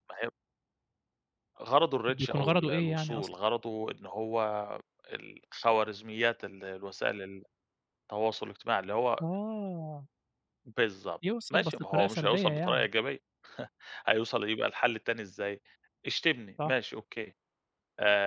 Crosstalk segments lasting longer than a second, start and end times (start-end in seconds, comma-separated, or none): 2.1-3.3, 11.5-12.9